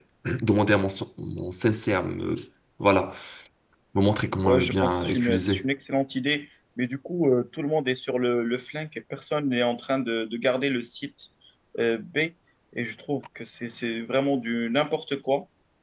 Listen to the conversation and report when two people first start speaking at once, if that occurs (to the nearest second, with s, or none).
4 s